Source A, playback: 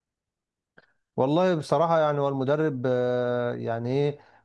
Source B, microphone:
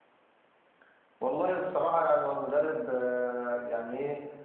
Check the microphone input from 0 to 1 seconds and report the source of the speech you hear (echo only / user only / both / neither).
neither